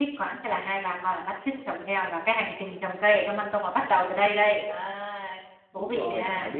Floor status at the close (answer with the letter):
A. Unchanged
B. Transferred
B